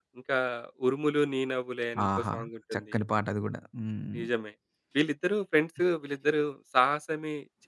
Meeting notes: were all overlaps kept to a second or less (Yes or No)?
Yes